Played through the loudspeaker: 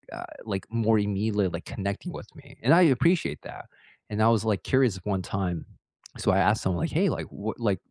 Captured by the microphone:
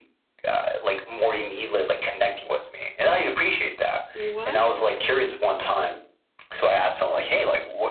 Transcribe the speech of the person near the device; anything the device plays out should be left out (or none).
What?